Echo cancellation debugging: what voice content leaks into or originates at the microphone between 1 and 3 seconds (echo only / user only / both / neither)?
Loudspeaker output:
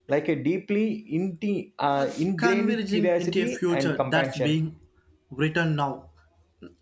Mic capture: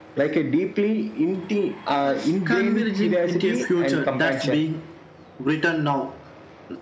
echo only